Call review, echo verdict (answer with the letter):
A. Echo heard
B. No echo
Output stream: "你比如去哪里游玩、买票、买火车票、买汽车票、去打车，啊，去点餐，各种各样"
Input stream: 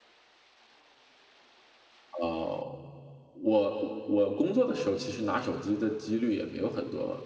B